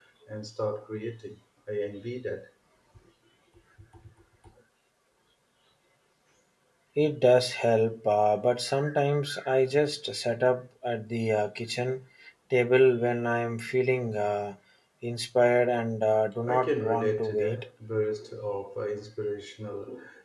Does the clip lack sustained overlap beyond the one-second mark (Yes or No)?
No